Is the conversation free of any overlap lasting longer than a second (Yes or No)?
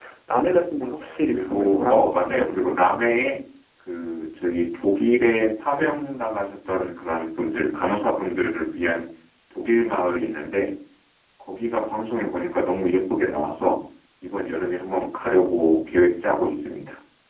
No